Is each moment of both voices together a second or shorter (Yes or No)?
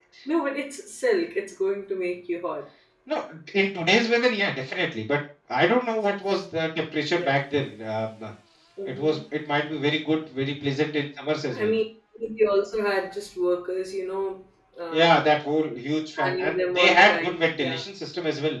No